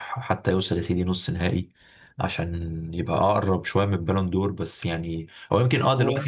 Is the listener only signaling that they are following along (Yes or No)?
Yes